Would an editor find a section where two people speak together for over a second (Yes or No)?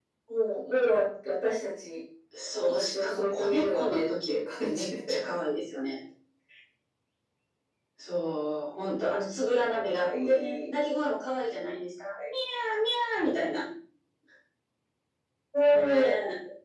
Yes